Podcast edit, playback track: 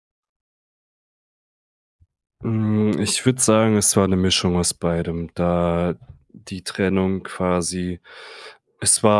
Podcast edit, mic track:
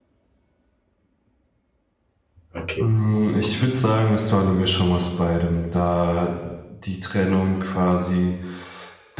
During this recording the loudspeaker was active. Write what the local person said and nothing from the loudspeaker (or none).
Okay.